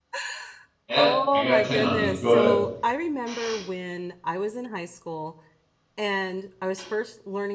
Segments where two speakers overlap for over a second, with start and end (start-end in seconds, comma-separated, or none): 0.9-2.6